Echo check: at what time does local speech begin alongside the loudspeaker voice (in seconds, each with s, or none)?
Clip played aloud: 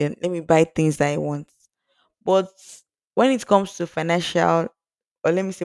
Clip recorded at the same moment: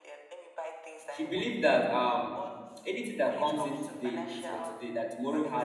1.1 s